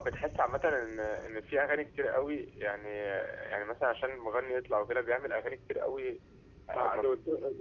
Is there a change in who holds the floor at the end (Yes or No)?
Yes